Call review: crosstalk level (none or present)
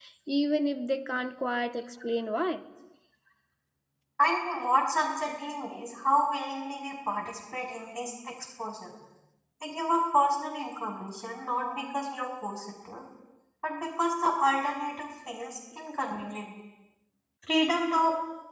none